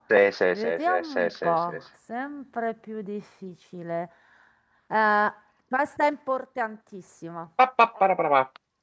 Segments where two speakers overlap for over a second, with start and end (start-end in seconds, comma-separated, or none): 0.5-1.8